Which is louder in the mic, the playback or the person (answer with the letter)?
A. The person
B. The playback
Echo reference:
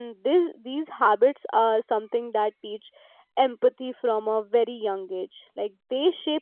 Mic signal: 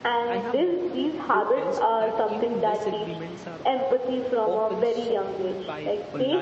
B